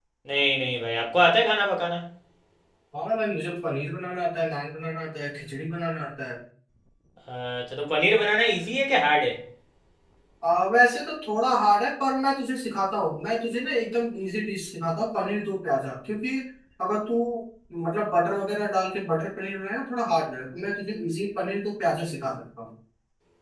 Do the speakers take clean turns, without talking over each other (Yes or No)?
Yes